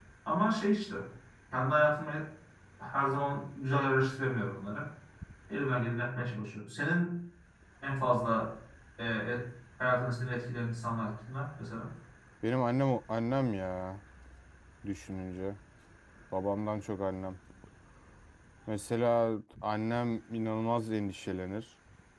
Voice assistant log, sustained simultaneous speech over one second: none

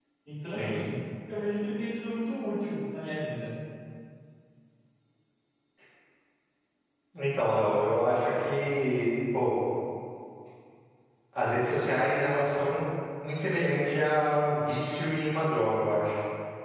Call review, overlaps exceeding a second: none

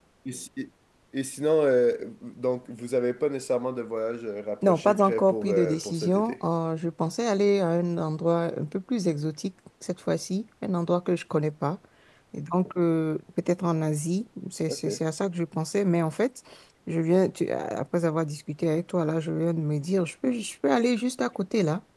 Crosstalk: present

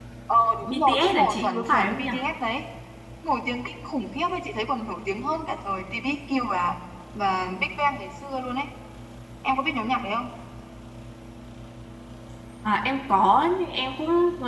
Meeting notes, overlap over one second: present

